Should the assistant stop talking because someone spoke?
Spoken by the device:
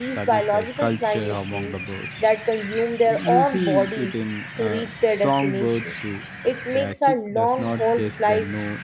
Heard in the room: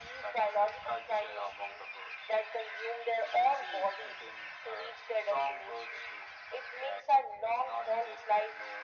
No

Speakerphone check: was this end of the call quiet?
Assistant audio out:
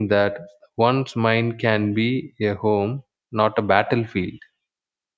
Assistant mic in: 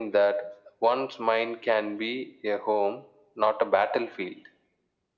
Yes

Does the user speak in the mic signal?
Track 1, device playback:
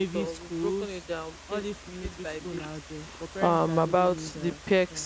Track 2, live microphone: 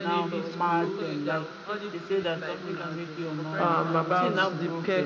Yes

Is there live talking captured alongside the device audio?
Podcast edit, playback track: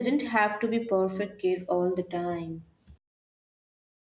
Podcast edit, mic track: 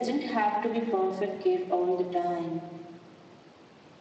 No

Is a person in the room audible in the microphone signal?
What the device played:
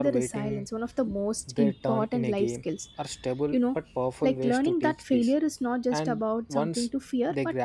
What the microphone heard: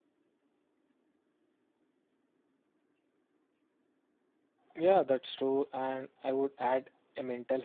Yes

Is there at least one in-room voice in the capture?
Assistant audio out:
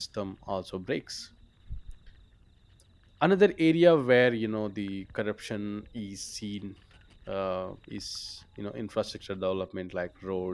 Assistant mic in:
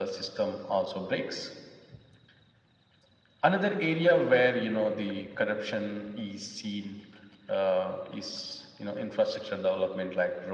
No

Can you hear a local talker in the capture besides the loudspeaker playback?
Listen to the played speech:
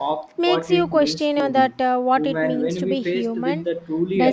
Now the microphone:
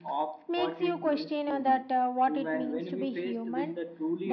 No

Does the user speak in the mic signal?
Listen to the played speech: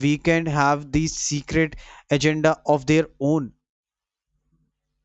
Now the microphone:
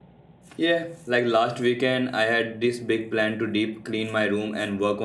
Yes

